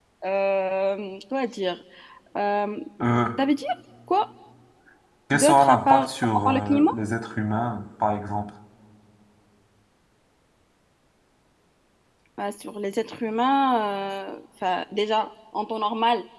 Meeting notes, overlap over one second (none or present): present